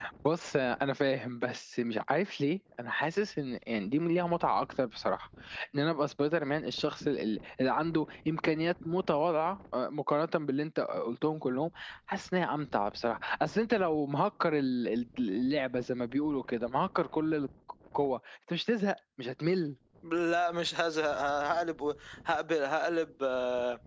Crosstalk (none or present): none